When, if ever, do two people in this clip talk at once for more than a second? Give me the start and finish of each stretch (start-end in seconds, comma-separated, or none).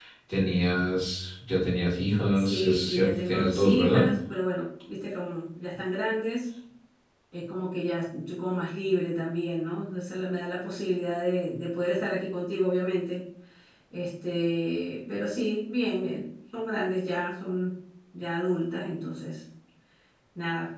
2.4-4.1